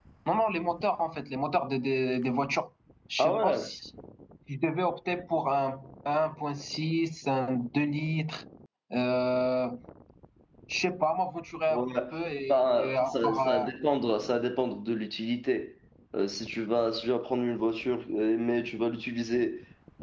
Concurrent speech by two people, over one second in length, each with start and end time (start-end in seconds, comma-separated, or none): 12.5-13.7